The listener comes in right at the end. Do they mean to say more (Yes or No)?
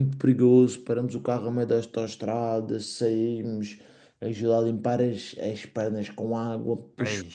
No